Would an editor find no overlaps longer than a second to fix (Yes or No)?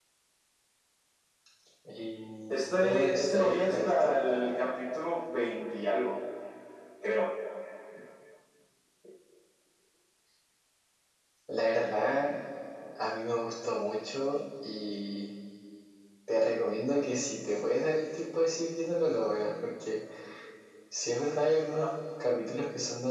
No